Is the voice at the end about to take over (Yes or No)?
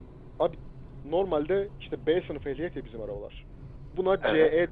No